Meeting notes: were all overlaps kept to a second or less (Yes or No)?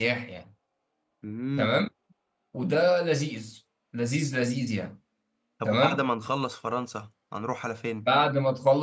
Yes